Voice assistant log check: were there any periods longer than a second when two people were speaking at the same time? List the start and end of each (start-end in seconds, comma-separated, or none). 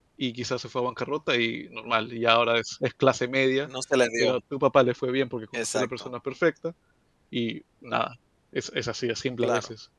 none